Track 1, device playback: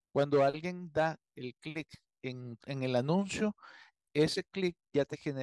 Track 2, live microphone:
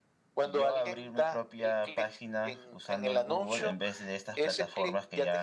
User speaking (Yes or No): Yes